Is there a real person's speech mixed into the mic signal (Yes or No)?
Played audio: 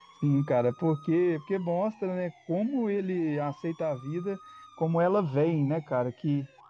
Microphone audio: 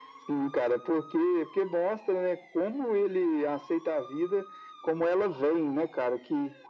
No